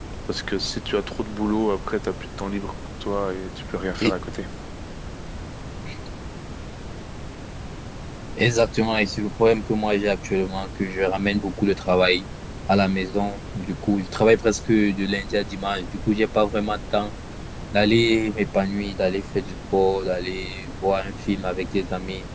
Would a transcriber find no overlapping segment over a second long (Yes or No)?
Yes